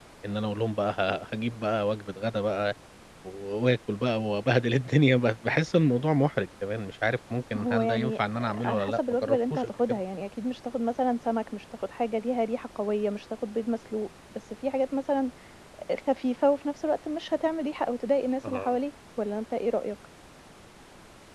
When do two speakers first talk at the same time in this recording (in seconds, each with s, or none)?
7.6 s